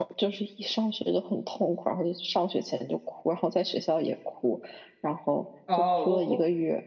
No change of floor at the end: No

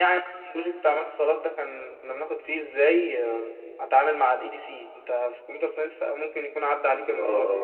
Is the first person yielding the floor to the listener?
Yes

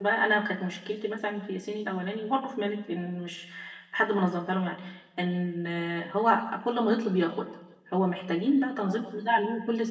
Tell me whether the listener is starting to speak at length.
No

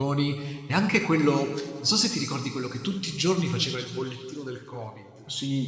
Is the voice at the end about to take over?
Yes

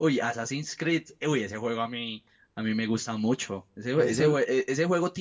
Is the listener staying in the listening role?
Yes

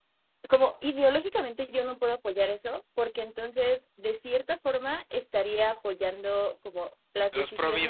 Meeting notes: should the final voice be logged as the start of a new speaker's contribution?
No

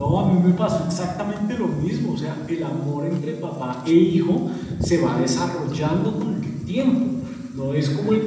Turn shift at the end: No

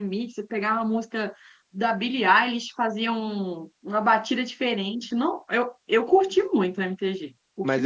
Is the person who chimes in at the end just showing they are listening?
No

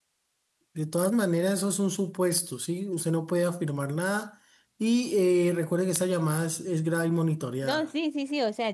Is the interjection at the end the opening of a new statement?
Yes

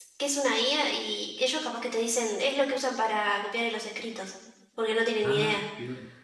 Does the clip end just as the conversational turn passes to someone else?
Yes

